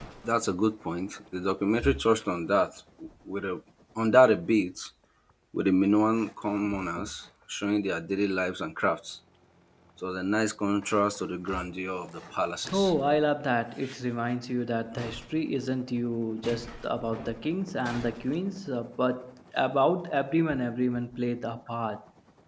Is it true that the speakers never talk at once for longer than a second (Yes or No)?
Yes